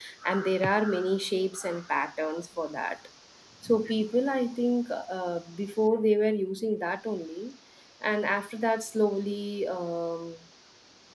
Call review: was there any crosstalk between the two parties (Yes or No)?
No